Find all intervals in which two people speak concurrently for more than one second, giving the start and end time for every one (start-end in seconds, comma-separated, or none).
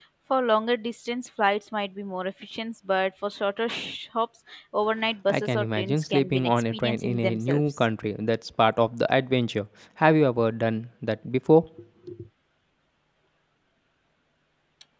5.3-7.8